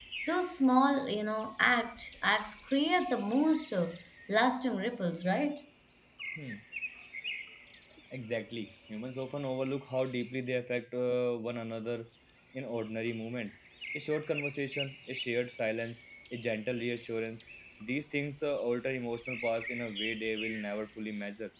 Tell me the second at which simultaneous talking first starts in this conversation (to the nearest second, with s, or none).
none